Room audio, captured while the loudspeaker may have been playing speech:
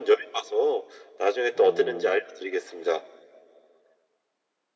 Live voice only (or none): 어,